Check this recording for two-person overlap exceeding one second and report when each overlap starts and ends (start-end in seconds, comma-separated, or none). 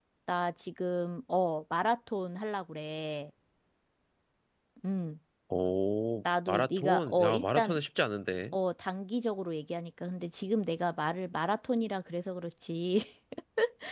6.5-7.8